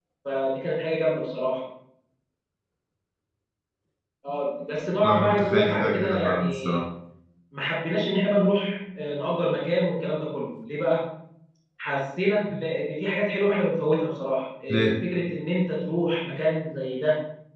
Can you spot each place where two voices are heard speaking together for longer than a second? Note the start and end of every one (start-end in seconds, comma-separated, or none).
5.0-6.8